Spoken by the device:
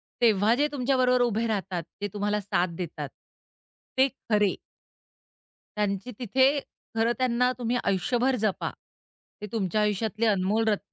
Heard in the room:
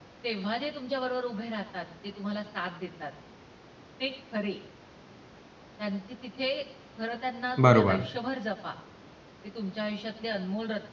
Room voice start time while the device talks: 7.6 s

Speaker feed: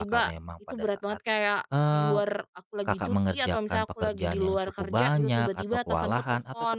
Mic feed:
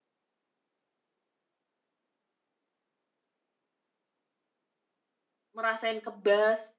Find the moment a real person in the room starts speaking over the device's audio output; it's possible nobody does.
5.6 s

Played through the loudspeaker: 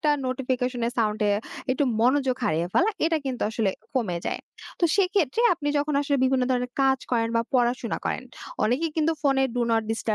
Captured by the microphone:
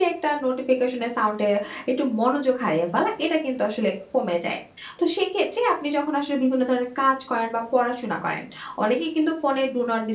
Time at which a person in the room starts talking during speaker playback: none

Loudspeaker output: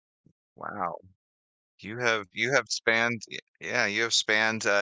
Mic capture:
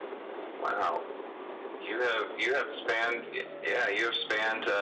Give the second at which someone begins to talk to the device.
none

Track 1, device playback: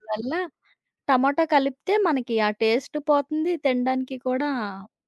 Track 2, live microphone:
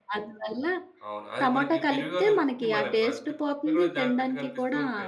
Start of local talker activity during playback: 1.1 s

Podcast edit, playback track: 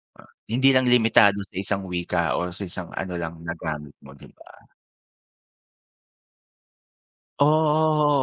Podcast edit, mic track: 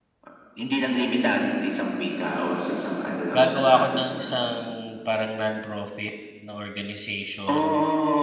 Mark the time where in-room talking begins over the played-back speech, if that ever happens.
3.4 s

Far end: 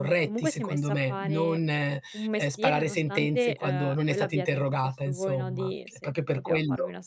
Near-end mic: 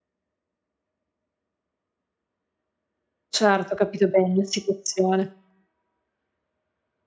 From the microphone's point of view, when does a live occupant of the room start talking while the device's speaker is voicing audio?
3.3 s

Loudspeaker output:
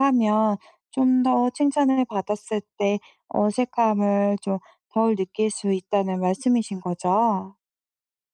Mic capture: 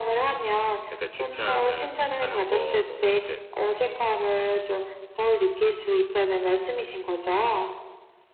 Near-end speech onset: 0.9 s

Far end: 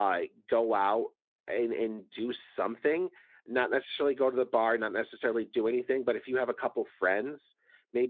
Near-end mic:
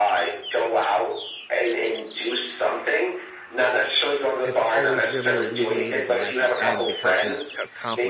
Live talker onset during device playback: 4.4 s

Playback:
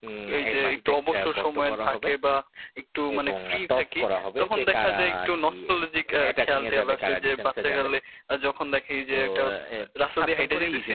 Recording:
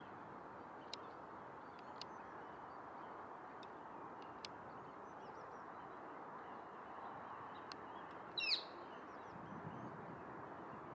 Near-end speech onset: none

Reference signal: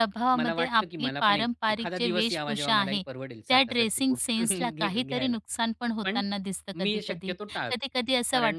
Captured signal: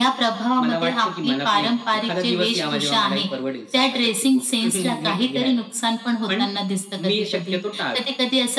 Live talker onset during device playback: none

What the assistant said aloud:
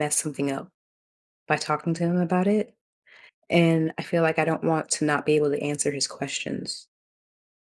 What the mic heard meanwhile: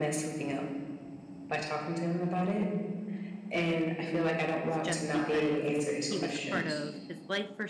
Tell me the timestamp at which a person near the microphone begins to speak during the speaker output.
4.5 s

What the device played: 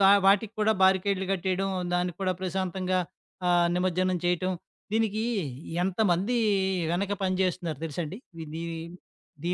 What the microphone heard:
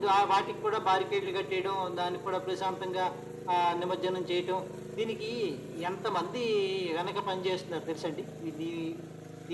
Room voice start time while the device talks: none

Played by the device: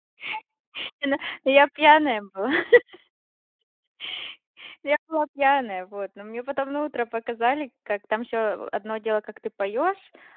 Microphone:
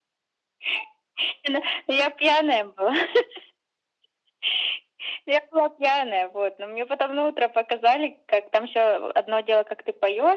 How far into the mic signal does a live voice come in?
none

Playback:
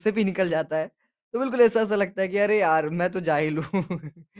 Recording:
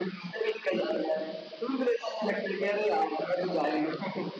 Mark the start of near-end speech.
none

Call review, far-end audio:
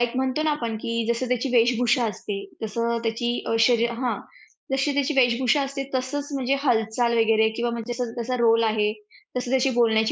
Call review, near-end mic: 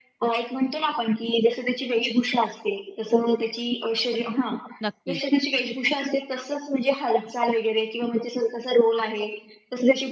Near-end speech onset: 4.8 s

